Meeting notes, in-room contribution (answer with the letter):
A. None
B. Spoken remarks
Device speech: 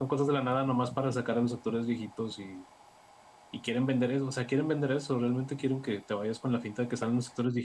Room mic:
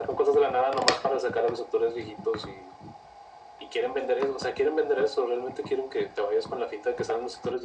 A